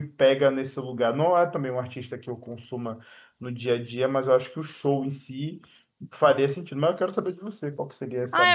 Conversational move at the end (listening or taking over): taking over